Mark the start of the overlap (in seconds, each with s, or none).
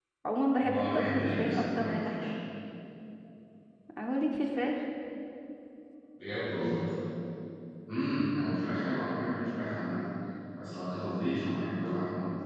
0.6 s